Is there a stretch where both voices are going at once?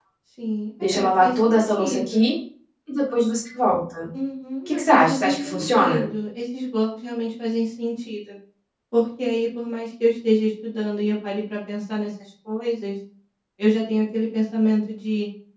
Yes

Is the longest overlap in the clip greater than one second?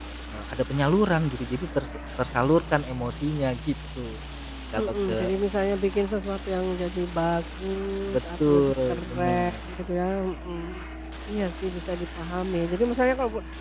Yes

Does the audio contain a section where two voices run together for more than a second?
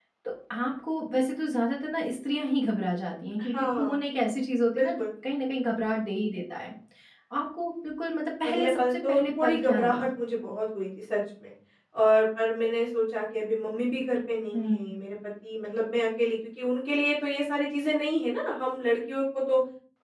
Yes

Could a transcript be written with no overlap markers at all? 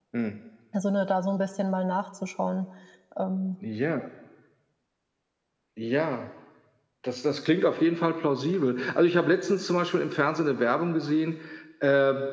Yes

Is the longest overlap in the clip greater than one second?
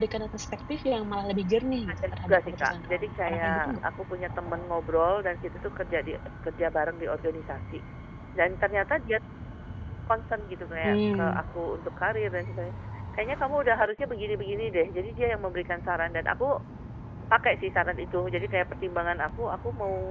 Yes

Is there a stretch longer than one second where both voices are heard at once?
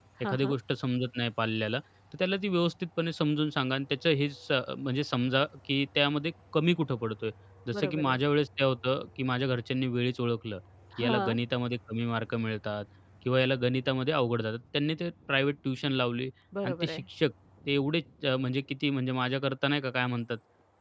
No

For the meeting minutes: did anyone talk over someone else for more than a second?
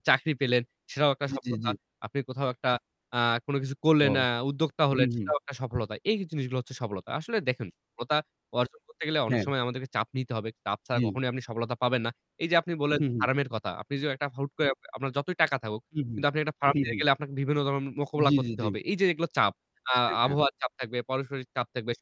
No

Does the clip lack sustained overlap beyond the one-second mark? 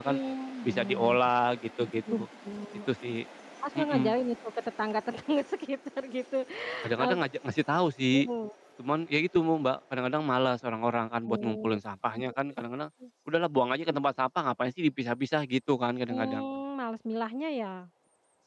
Yes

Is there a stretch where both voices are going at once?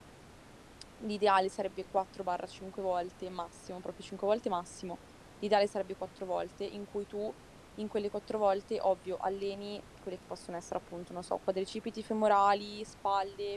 No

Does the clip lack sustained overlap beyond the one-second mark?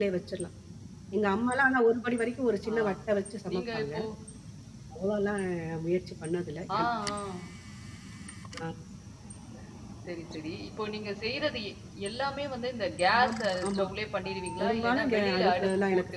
No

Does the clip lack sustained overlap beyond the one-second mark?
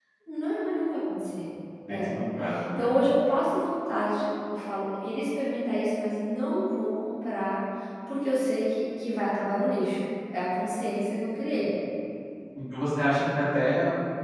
Yes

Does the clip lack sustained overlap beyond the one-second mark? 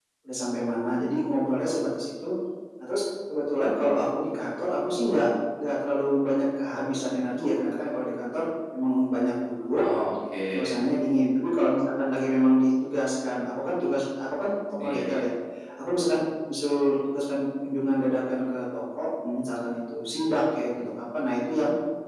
Yes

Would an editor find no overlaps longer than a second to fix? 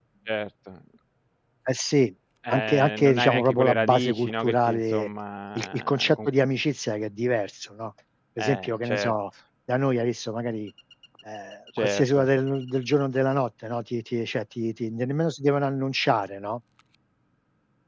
No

